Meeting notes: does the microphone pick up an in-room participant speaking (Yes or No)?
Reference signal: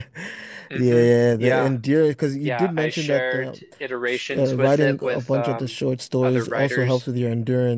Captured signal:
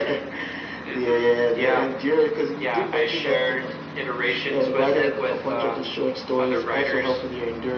No